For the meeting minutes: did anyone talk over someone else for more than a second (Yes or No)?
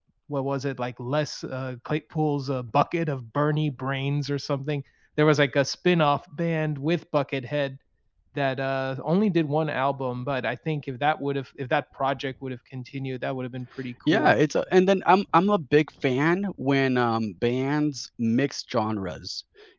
No